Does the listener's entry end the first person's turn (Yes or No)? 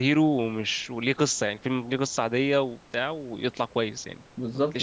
Yes